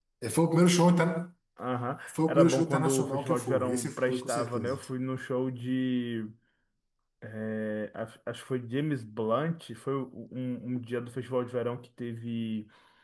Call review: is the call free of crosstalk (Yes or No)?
No